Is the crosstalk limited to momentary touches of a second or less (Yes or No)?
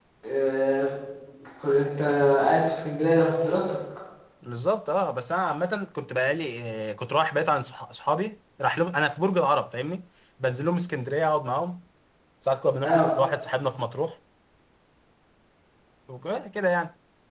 Yes